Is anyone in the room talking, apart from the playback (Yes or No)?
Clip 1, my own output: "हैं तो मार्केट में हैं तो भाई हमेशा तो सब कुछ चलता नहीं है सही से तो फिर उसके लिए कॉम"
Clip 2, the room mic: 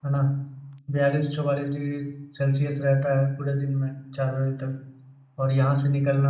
Yes